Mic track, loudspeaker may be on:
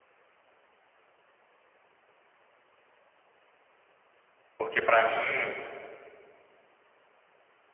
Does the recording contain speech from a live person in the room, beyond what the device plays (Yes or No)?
Yes